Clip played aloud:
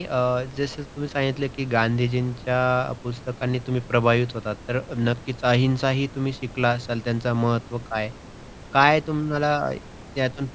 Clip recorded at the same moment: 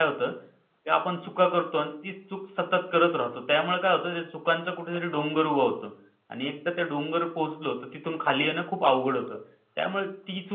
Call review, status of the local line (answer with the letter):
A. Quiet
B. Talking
B